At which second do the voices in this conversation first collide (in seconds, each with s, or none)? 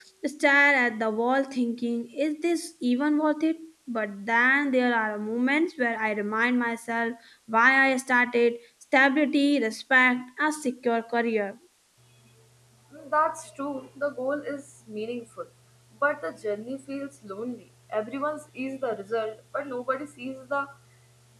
none